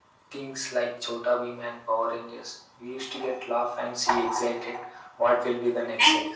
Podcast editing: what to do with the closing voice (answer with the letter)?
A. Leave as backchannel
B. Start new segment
B